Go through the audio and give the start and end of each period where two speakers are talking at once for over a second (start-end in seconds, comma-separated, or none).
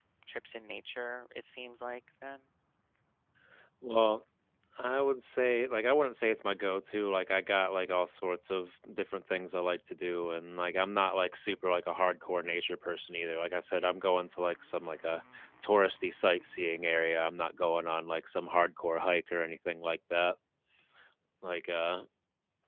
none